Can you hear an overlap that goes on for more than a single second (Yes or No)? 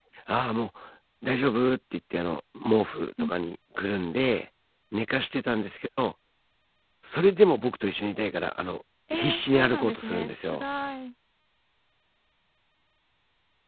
Yes